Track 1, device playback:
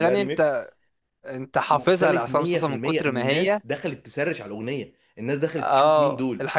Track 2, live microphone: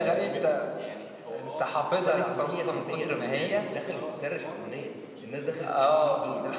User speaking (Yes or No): Yes